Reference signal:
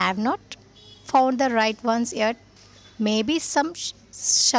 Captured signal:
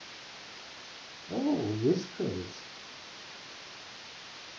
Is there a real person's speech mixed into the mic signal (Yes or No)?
Yes